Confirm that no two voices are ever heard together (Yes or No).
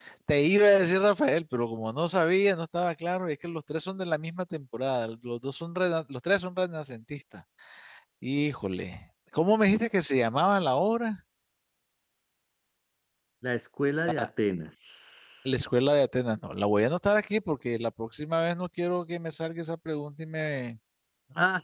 Yes